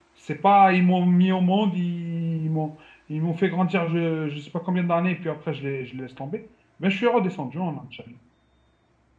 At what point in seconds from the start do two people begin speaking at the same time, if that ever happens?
none

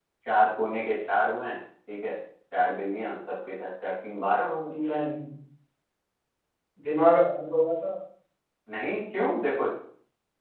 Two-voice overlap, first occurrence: none

